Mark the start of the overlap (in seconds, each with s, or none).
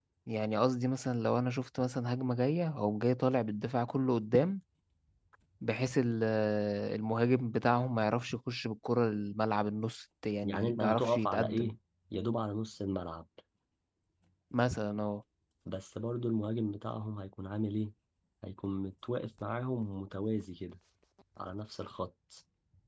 10.4 s